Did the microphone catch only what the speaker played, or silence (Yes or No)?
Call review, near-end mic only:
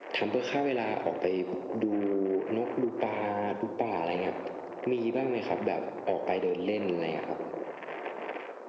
Yes